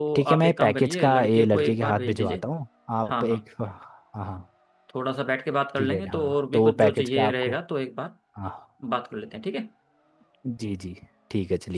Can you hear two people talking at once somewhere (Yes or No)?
Yes